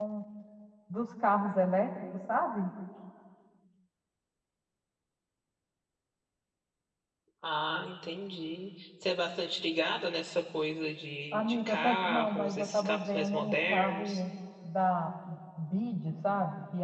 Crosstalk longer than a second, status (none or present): present